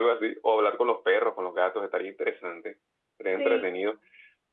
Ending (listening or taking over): listening